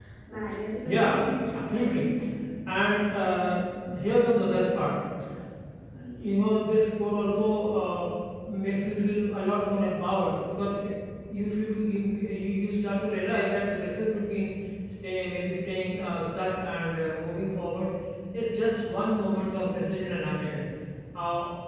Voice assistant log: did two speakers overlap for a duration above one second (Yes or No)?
Yes